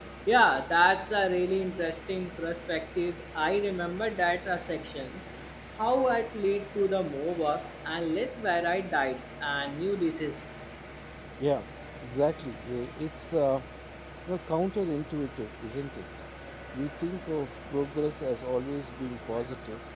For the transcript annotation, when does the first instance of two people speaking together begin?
none

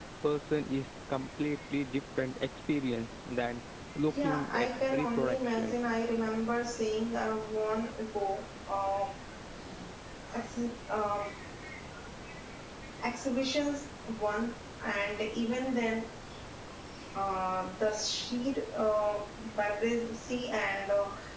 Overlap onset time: 4 s

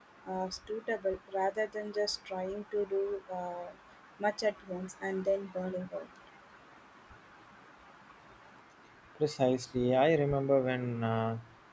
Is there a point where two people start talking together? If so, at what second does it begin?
none

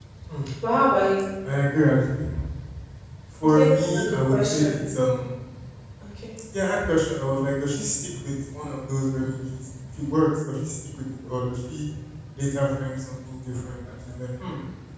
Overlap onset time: 3 s

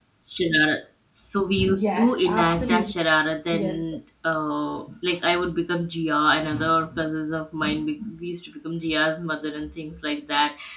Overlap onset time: 2 s

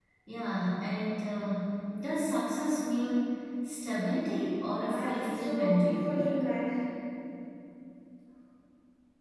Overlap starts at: 5 s

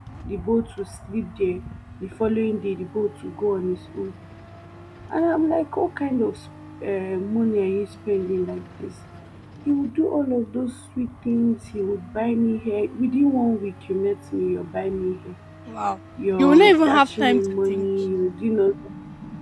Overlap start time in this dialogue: 16 s

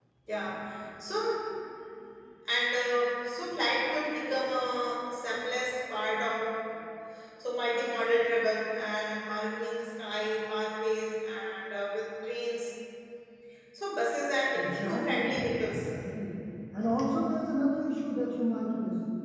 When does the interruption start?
15 s

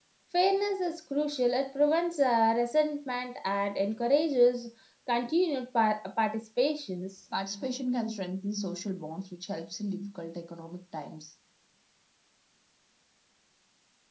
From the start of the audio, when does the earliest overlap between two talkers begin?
none

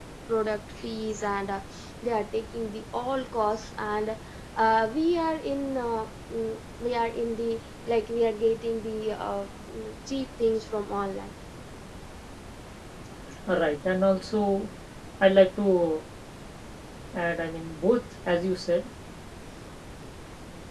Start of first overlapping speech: none

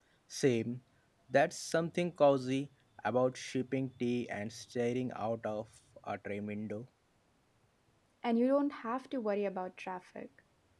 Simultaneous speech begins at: none

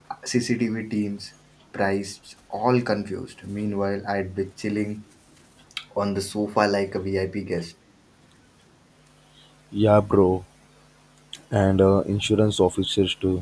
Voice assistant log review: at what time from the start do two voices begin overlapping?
none

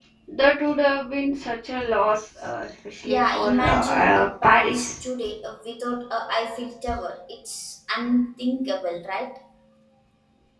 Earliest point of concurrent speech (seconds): 3 s

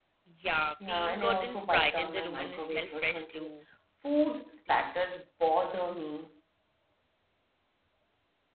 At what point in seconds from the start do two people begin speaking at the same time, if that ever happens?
1 s

